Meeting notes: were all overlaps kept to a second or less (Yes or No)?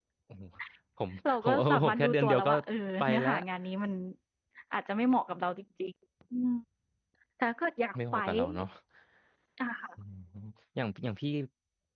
No